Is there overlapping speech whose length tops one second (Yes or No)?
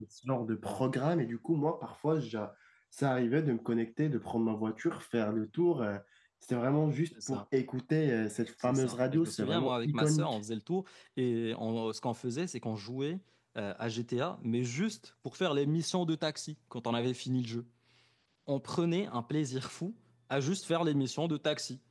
Yes